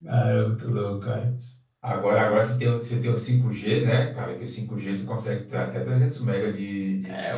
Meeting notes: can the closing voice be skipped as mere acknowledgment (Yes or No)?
No